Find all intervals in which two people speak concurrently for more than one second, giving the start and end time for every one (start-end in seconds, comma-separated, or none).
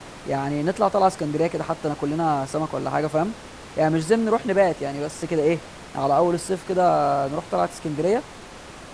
none